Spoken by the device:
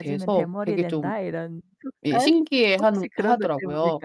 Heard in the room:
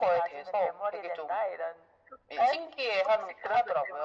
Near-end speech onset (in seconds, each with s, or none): none